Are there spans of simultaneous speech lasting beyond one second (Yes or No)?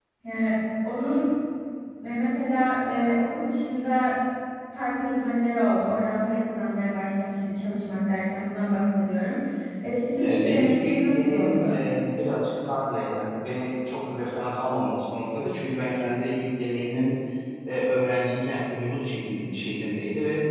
Yes